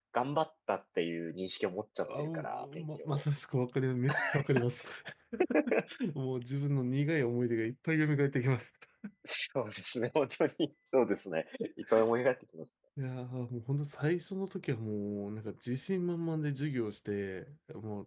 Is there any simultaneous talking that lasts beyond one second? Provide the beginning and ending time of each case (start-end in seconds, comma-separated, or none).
2.0-3.2